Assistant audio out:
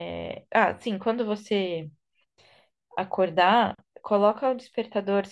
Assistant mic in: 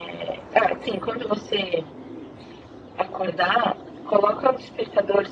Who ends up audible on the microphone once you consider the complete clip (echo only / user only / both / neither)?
echo only